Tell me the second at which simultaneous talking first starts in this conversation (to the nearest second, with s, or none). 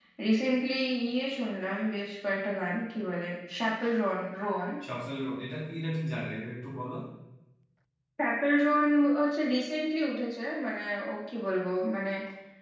none